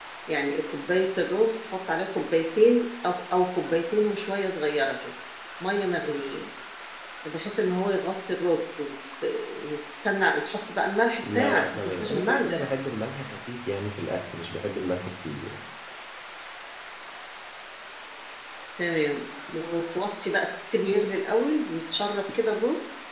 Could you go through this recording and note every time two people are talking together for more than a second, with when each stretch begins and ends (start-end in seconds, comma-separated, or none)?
11.3-12.7